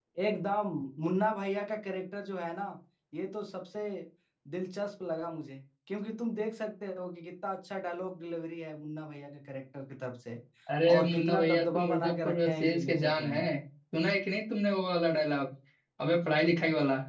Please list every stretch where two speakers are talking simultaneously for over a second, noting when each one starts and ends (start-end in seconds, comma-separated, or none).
10.9-13.4